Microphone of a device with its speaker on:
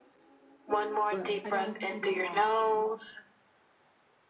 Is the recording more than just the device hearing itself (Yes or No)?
Yes